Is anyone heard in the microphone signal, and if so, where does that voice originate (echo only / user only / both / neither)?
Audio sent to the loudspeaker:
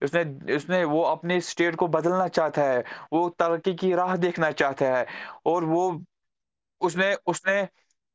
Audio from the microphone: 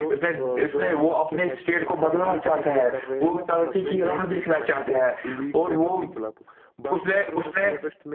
both